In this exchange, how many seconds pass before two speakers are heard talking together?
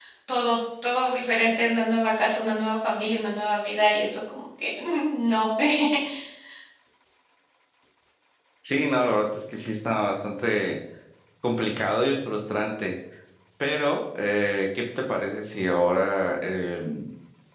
none

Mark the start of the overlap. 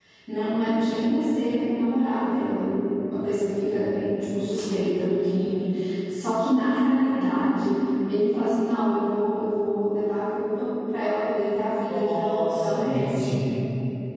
11.9 s

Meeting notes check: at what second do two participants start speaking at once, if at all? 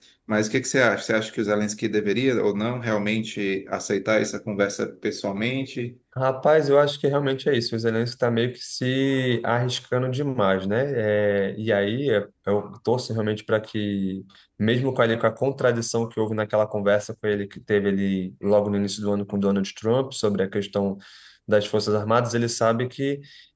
none

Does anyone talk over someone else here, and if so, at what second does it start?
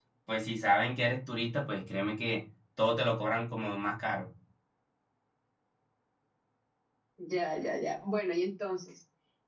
none

